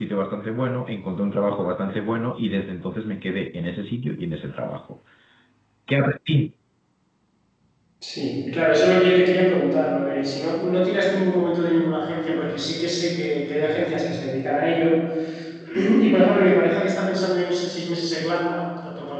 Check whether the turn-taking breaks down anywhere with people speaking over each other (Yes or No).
No